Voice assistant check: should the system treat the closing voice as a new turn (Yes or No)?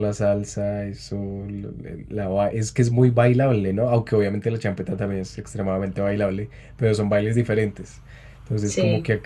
No